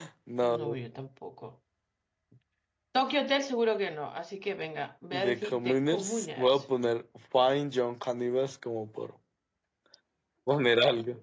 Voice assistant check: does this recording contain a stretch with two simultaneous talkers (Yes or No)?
Yes